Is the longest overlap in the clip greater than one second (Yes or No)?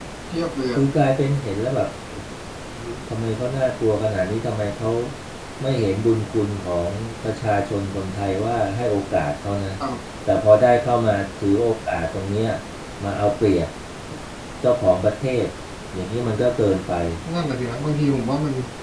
No